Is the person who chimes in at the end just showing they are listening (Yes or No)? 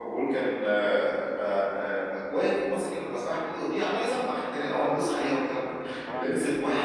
Yes